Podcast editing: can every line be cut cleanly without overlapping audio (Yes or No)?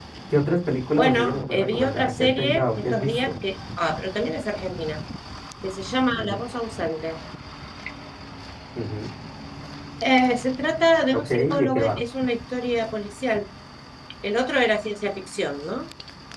No